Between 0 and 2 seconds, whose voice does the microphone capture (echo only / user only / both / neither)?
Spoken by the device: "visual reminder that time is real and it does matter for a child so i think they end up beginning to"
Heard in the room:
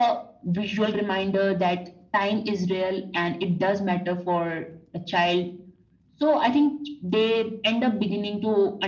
echo only